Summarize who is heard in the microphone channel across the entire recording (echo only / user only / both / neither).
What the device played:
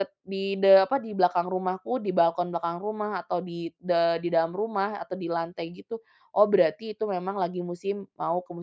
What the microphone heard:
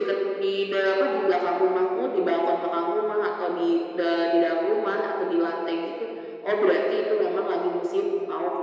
echo only